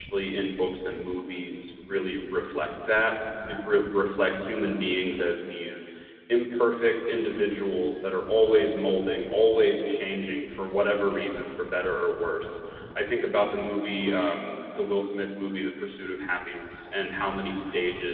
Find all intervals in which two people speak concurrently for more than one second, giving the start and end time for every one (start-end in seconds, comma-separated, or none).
none